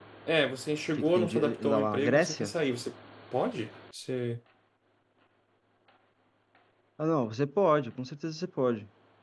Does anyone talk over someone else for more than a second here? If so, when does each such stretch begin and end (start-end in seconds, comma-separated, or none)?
1.0-2.5